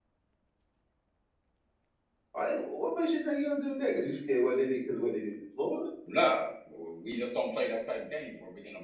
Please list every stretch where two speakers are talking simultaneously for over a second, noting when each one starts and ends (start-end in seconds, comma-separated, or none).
none